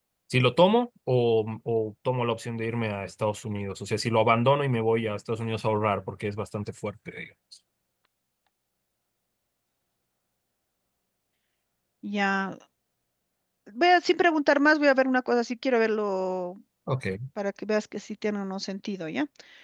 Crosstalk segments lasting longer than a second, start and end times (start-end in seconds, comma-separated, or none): none